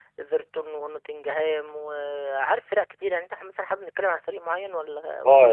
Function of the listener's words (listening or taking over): taking over